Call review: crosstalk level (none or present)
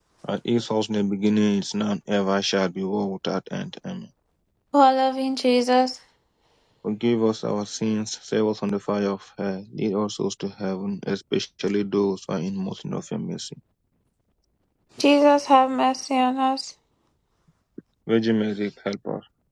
none